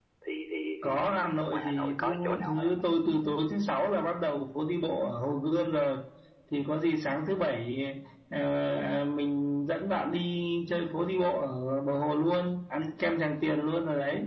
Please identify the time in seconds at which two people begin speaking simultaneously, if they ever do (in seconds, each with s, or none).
0.8 s